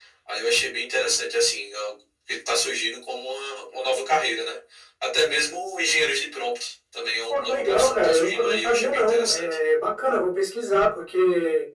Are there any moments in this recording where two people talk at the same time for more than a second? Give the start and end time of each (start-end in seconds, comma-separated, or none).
7.3-9.4